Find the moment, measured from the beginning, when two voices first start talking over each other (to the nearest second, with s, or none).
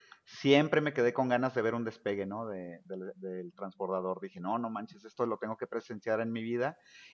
none